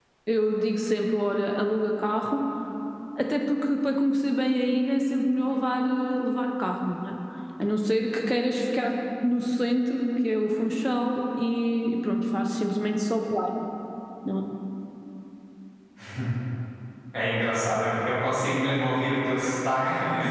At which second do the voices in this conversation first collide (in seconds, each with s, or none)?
none